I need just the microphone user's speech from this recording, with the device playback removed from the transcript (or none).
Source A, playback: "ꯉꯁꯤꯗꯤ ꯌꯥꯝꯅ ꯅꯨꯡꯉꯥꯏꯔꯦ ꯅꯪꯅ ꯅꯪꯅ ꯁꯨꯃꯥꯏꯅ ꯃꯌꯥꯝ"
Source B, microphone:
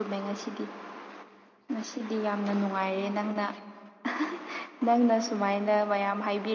none